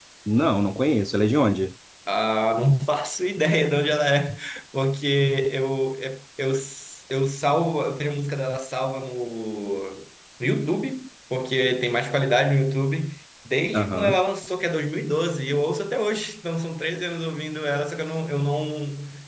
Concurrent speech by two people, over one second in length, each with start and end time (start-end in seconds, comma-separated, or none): none